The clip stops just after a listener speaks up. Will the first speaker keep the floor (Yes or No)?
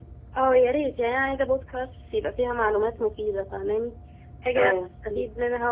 Yes